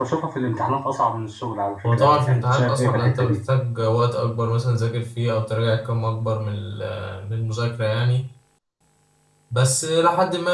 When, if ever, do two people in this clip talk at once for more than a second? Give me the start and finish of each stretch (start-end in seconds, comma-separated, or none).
1.9-3.4